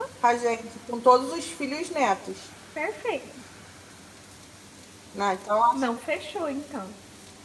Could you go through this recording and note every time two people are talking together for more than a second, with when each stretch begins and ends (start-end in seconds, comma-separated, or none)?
none